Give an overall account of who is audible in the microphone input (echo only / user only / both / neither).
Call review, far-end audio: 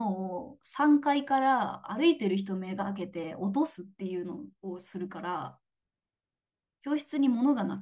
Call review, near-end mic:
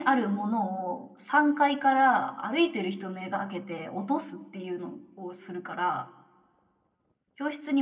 echo only